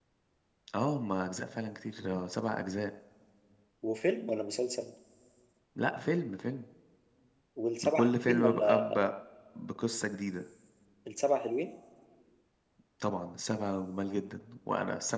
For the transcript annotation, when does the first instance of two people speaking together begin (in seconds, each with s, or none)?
7.8 s